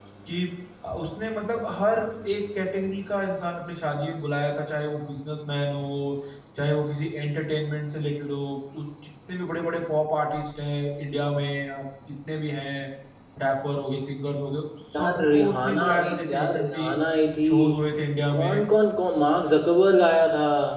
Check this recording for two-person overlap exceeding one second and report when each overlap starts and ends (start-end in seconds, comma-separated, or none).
15.0-16.9